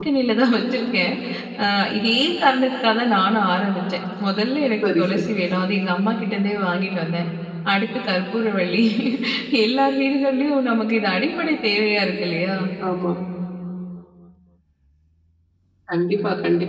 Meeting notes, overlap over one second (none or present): none